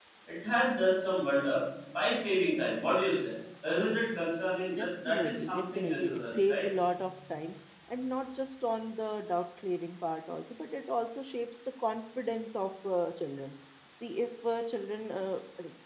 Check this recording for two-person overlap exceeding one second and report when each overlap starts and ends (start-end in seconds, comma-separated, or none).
4.8-6.7